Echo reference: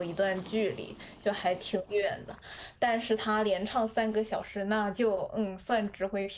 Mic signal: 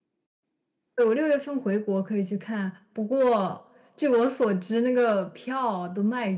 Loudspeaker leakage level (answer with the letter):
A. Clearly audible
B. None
B